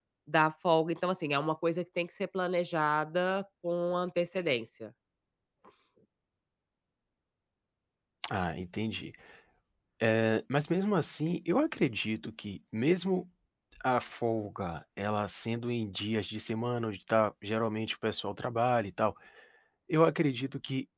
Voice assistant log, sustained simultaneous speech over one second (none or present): none